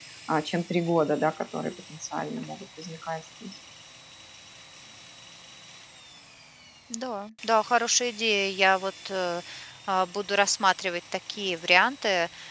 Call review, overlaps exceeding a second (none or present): none